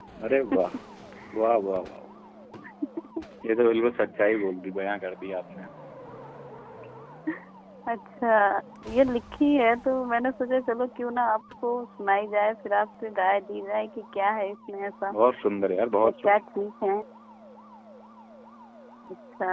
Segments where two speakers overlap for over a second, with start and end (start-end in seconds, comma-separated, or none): none